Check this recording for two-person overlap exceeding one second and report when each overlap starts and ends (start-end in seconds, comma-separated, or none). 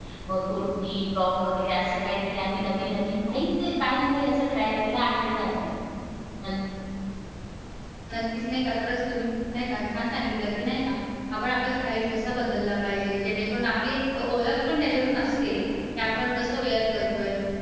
none